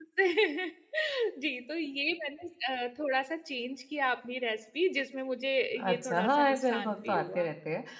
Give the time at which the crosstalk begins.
6 s

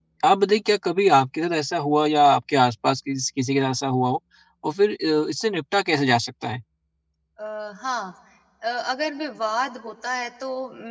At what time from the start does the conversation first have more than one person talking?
none

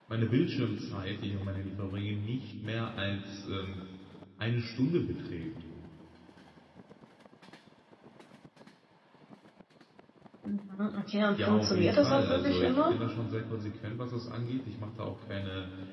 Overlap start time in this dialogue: 11 s

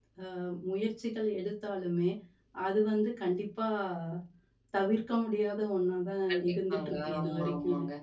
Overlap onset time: 6 s

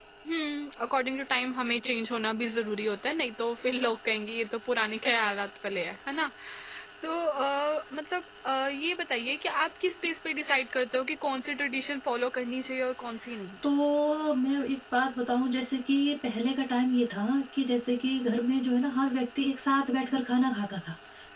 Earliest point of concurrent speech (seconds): none

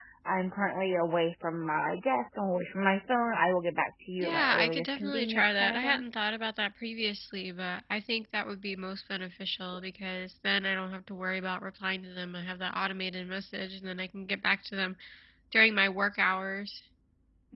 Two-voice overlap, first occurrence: 4 s

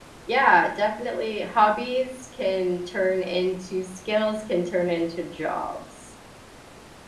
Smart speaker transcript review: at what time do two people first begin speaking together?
none

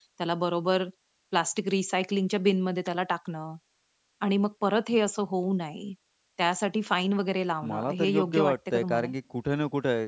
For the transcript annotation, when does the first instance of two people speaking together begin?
8 s

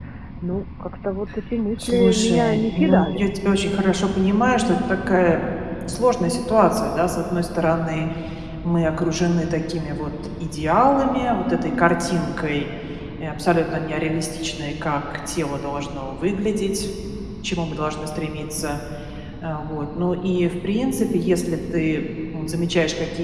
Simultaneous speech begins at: 2 s

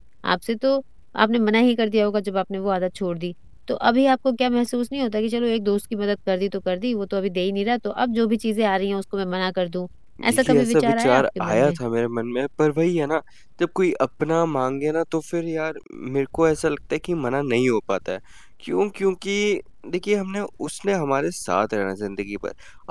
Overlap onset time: 10 s

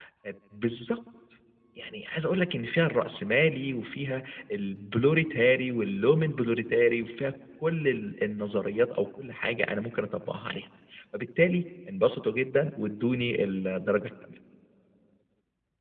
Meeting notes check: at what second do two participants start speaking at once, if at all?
none

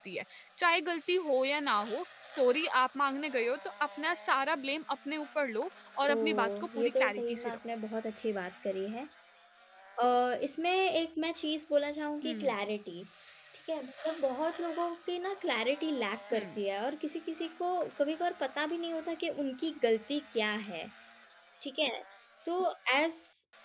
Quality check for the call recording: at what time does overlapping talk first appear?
6 s

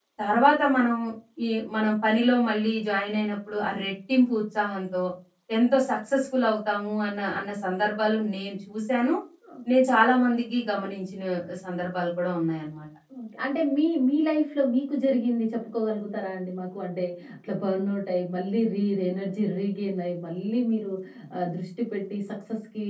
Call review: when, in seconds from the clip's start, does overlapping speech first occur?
none

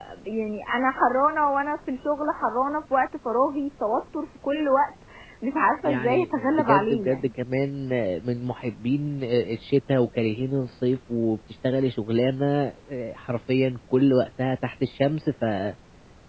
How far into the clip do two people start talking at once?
6 s

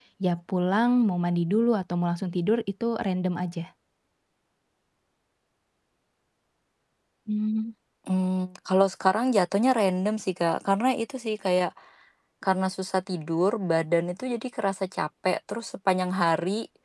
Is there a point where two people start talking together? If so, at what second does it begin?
none

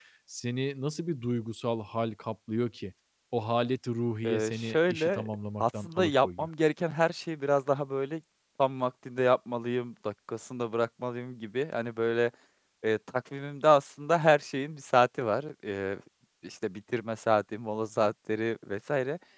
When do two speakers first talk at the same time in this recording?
4 s

